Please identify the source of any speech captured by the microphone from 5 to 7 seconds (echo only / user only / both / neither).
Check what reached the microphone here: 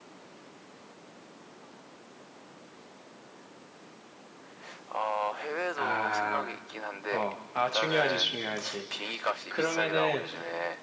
both